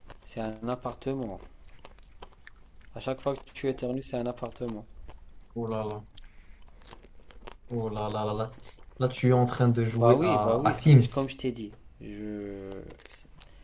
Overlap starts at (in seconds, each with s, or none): 9.9 s